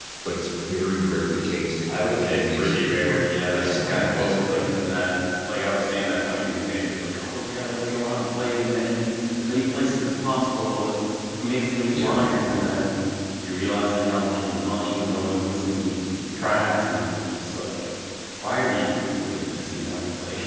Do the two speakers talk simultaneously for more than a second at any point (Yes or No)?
Yes